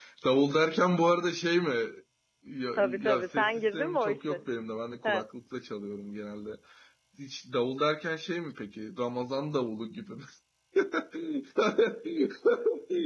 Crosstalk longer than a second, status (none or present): present